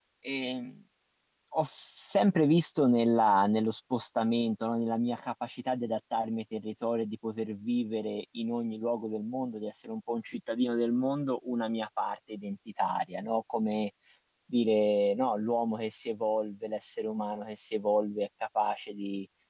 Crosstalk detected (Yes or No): No